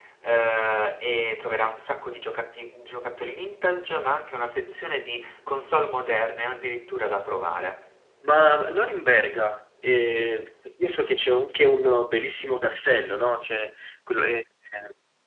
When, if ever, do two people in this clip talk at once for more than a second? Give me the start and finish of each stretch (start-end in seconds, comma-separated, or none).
none